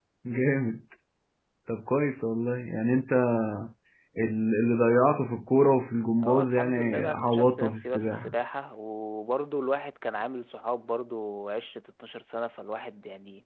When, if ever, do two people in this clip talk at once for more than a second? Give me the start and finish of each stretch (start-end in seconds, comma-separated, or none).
6.2-8.3